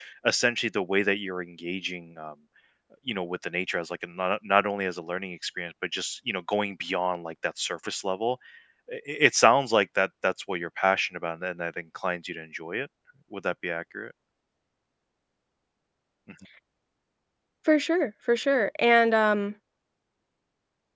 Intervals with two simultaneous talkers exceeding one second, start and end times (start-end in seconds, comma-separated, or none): none